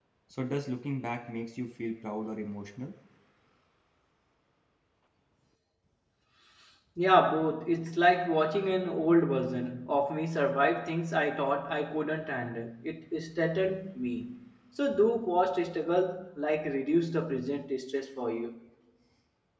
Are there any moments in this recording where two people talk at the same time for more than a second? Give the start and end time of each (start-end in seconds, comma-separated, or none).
none